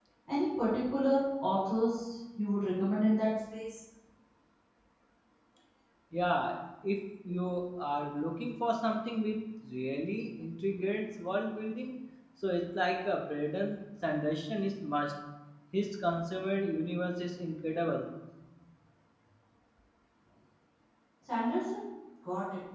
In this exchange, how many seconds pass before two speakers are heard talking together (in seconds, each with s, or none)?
none